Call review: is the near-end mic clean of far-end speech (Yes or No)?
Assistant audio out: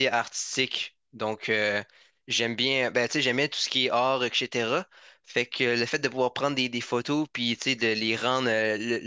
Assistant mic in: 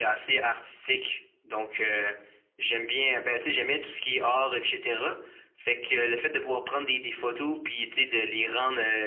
No